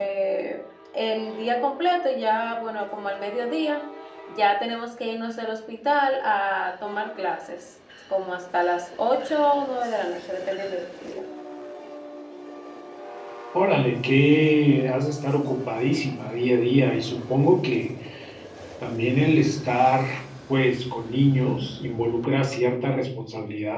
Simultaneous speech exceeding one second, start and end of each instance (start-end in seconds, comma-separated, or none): none